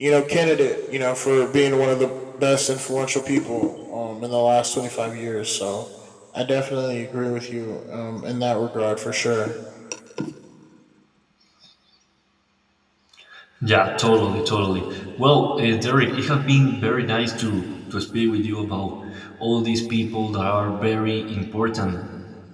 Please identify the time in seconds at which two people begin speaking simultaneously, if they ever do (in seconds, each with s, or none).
none